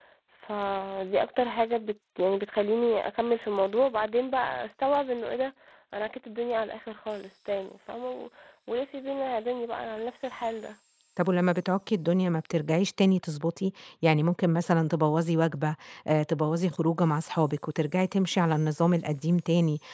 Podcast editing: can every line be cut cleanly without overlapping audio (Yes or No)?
Yes